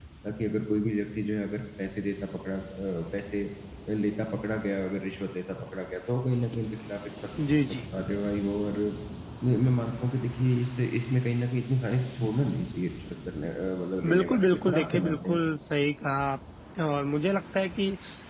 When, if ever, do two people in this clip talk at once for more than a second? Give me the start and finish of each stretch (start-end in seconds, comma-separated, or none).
14.1-15.4